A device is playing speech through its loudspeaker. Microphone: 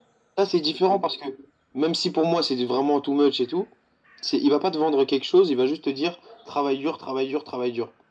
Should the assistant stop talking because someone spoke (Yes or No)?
No